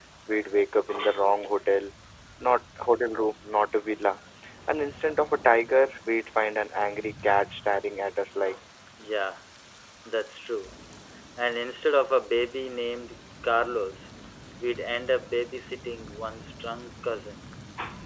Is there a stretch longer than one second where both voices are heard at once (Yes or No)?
No